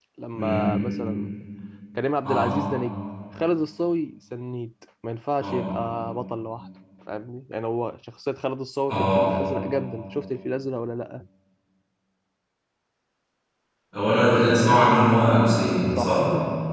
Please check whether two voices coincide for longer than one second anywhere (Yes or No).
No